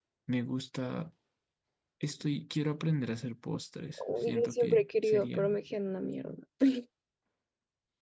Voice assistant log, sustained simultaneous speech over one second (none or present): present